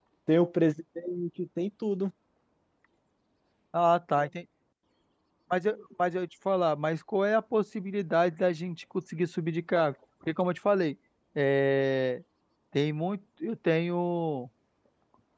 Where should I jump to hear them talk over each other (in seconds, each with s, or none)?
none